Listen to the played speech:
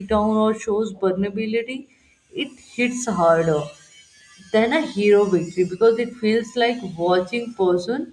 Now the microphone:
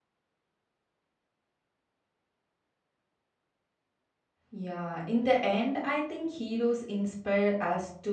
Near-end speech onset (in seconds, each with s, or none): 4.5 s